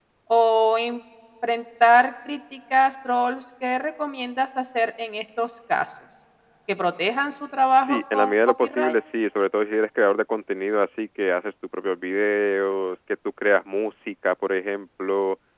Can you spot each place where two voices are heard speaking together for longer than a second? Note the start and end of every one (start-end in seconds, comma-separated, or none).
7.8-9.0